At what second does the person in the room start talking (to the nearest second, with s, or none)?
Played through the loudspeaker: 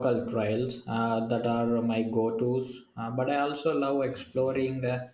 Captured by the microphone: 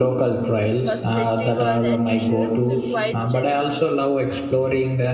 1 s